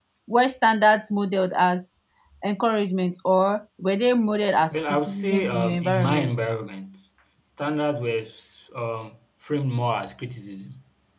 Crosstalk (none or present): present